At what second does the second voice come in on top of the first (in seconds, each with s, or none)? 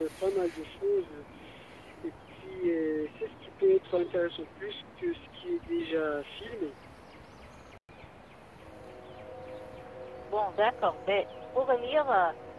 none